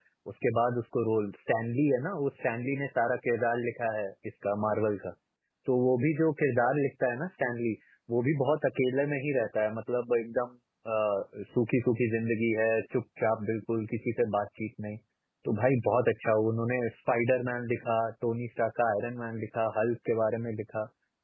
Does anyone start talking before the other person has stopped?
No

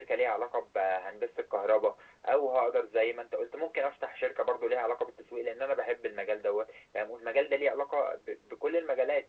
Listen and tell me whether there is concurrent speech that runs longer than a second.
No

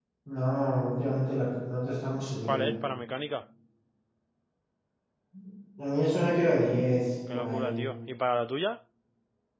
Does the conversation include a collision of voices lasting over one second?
No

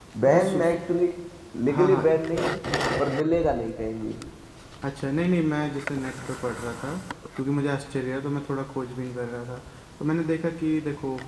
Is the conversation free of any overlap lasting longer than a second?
Yes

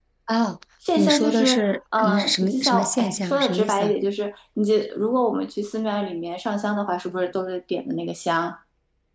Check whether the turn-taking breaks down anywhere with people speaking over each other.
Yes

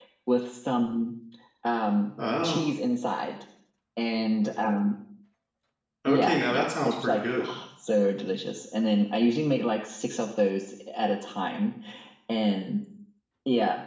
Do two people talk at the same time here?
Yes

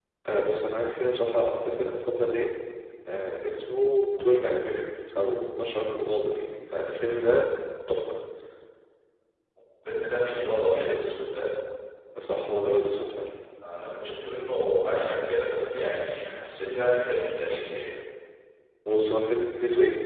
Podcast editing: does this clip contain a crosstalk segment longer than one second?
No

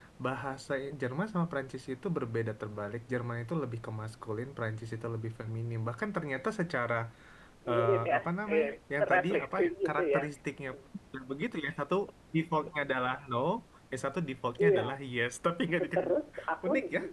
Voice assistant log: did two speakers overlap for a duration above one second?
Yes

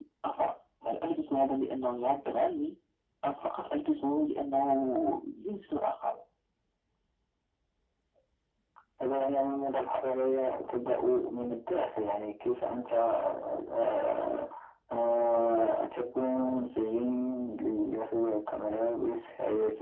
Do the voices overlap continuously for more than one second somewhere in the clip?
No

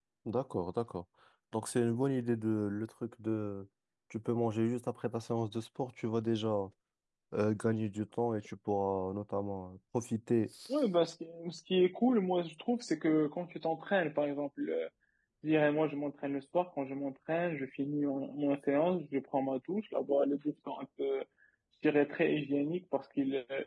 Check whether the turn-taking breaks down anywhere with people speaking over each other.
No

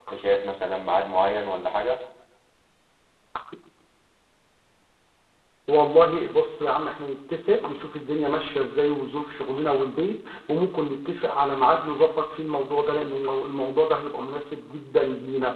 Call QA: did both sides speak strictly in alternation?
Yes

